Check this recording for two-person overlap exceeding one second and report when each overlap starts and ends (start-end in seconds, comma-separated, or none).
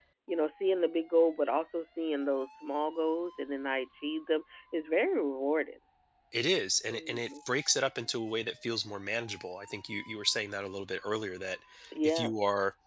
none